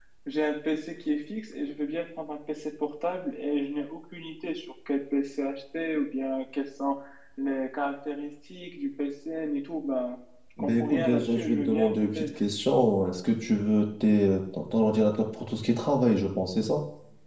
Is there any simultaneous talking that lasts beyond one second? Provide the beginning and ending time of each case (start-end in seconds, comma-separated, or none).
10.6-12.2